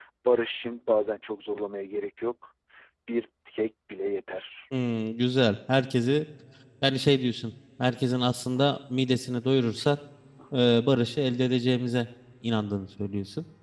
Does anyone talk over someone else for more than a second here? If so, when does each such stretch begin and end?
none

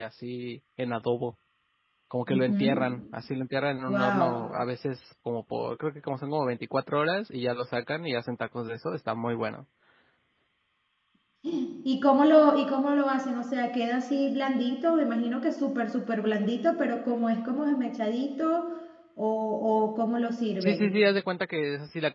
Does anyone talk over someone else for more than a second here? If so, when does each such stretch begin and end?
none

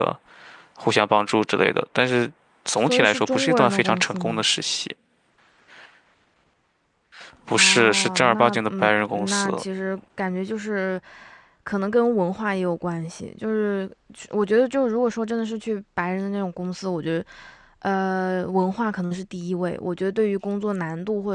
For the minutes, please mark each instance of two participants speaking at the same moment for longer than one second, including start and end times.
2.8-4.4, 7.5-9.6

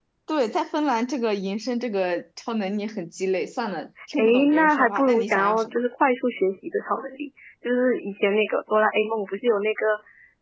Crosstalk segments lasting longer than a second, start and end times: 4.2-5.8

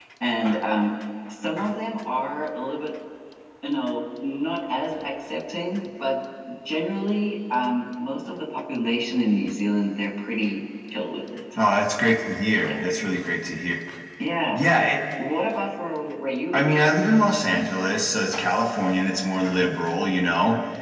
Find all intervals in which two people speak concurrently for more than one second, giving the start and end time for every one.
none

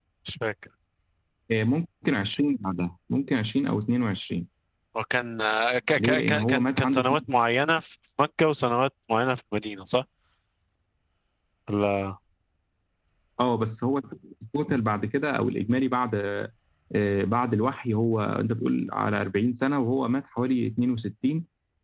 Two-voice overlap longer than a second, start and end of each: 6.0-7.2

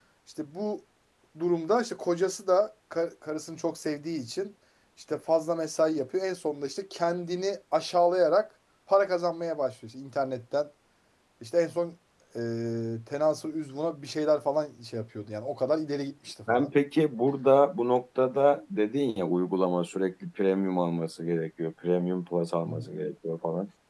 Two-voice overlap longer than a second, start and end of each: none

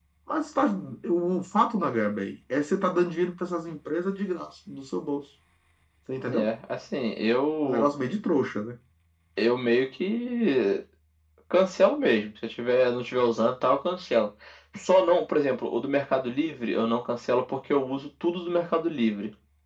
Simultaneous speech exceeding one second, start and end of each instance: none

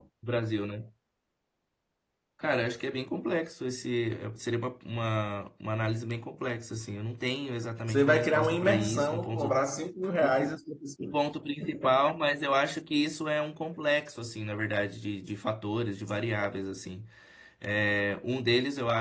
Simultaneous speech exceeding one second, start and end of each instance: 7.9-9.5

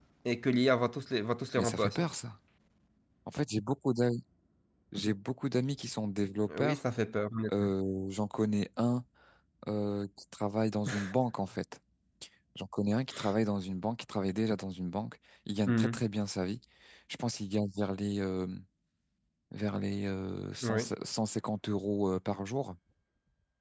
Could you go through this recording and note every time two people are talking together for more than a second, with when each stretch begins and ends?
none

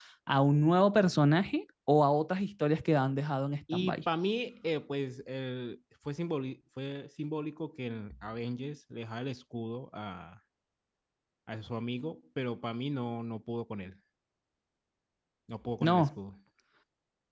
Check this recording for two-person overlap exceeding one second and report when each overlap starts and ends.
none

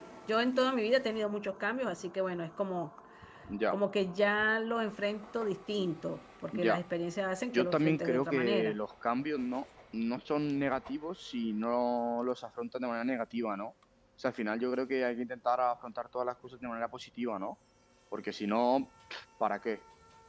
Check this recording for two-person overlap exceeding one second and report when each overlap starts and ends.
7.5-8.8

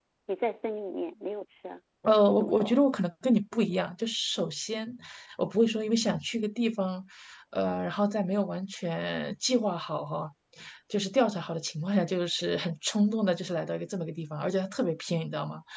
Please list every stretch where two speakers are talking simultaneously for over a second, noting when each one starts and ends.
none

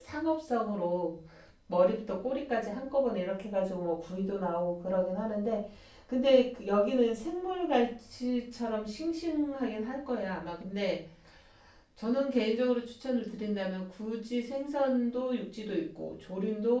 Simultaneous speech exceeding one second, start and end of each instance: none

